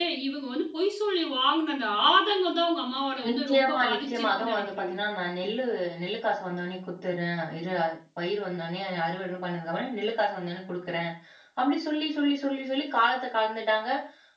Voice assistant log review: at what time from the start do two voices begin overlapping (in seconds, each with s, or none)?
3.2 s